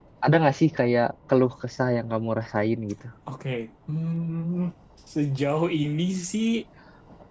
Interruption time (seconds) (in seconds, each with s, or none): none